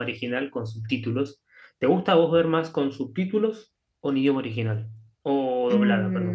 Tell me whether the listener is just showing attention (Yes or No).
No